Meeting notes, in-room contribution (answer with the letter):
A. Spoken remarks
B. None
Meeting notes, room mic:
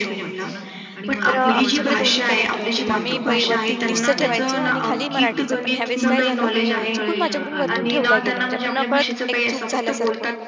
A